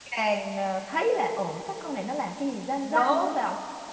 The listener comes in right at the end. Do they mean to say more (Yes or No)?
Yes